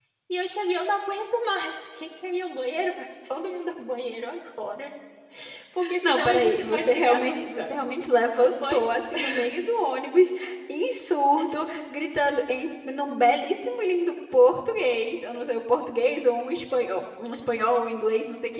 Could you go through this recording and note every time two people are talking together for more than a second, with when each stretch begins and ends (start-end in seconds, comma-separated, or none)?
6.0-7.7